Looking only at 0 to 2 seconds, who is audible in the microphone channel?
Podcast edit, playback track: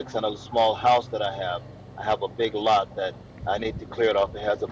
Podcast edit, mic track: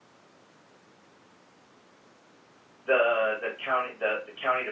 neither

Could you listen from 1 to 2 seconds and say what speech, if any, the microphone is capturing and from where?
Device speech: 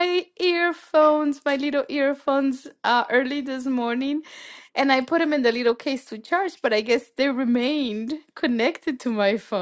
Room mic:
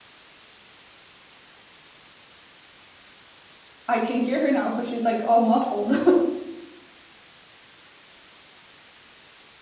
neither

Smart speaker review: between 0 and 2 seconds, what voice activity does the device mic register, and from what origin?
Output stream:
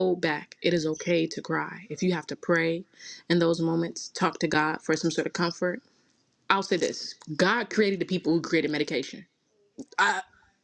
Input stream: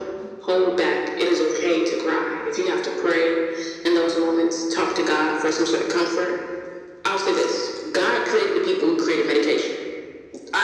echo only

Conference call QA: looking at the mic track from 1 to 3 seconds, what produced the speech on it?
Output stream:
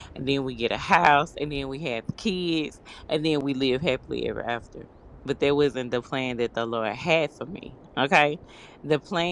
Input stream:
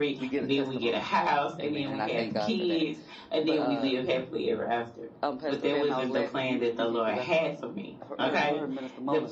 both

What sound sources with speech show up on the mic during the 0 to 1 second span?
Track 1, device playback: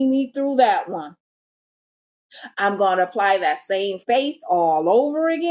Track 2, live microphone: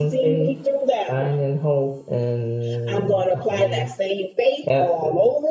both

